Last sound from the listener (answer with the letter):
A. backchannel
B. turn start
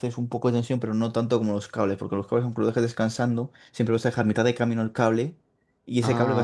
B